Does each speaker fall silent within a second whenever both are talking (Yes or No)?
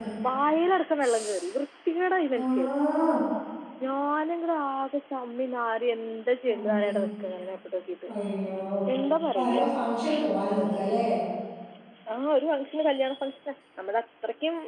Yes